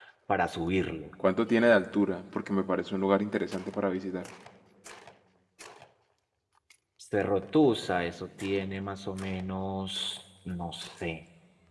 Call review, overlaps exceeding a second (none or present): none